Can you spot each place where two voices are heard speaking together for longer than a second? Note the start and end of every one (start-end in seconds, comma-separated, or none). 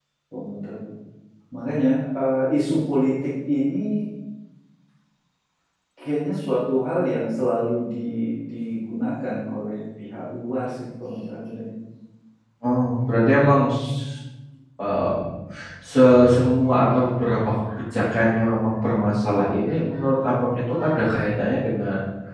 none